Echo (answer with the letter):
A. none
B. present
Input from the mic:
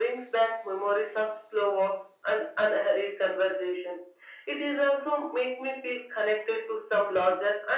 B